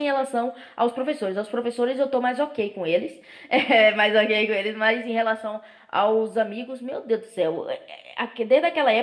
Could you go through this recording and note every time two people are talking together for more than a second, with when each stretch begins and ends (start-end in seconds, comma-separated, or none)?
none